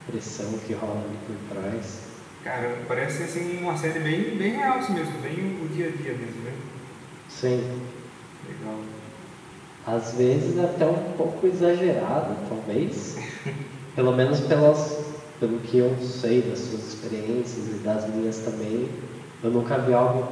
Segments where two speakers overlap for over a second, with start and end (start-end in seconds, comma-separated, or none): none